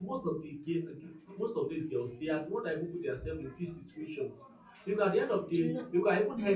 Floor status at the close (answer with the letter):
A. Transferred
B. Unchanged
B